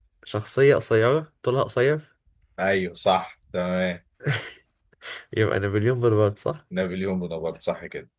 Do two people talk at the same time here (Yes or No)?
No